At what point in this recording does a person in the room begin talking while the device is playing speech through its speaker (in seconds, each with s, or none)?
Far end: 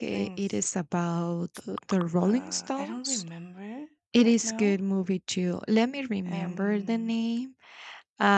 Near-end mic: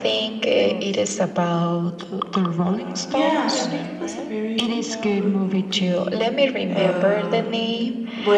3.1 s